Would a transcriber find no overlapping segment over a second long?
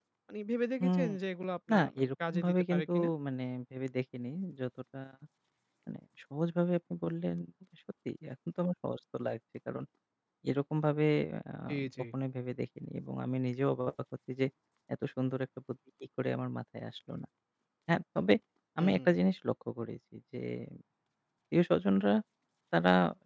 No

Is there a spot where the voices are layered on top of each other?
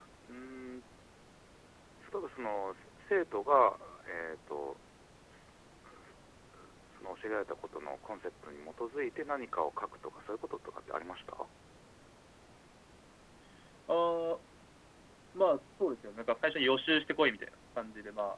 No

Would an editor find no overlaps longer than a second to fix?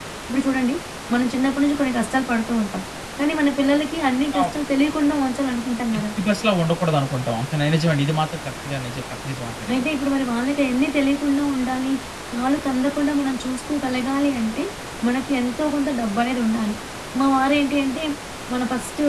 Yes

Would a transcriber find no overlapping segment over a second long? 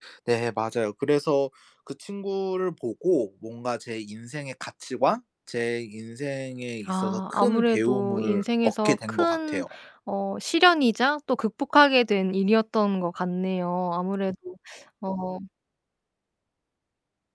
No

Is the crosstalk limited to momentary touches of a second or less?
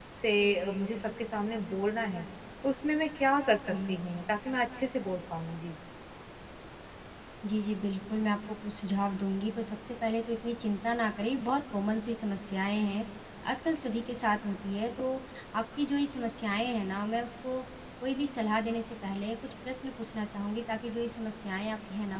Yes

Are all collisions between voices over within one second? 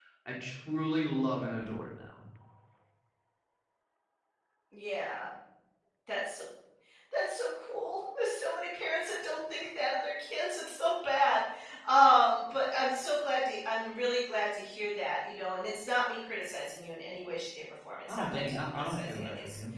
No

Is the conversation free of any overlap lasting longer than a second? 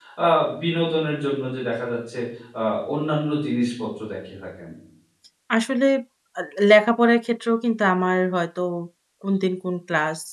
Yes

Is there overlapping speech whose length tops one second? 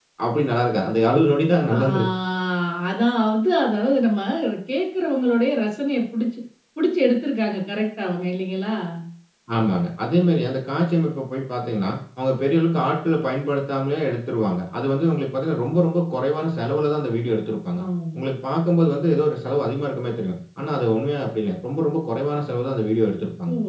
No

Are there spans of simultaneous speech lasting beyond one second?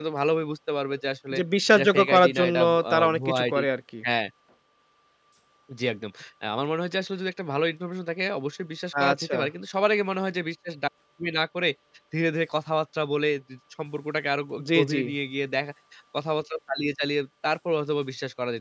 Yes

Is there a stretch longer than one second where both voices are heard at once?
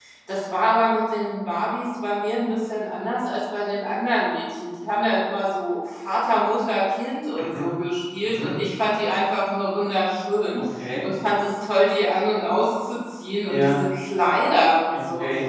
No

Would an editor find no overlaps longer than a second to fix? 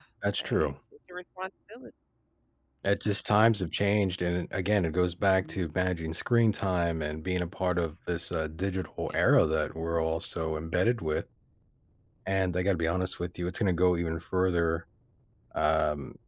Yes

